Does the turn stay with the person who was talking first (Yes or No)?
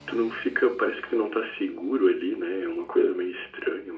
Yes